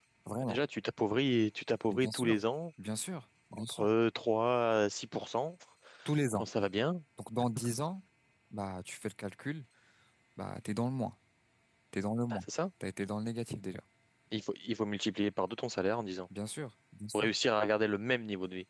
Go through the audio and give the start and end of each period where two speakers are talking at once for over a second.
none

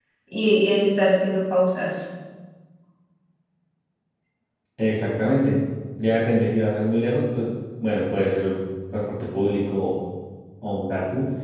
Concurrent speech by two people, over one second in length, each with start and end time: none

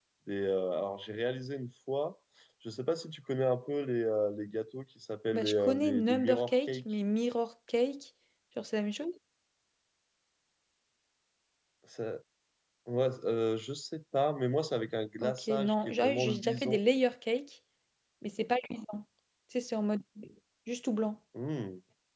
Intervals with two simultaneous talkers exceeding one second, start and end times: 5.3-6.8, 15.2-16.8

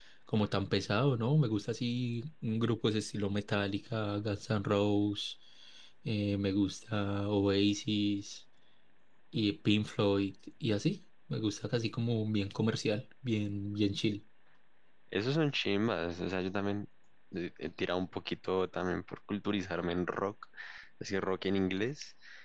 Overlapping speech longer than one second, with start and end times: none

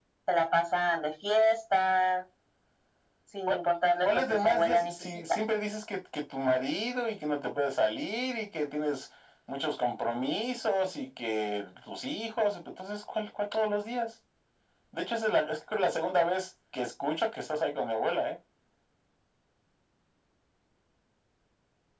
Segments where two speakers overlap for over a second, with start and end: 4.0-5.4

